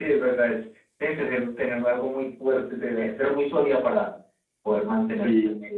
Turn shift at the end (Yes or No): Yes